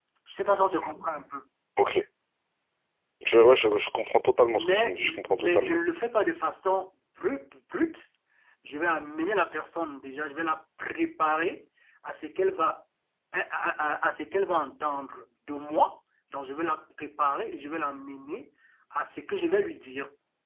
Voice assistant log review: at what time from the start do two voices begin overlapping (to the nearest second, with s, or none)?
5 s